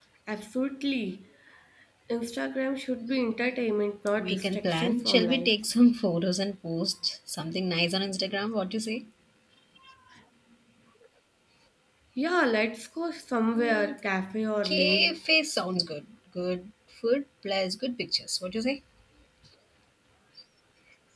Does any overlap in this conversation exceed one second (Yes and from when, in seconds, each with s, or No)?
Yes, from 4.2 s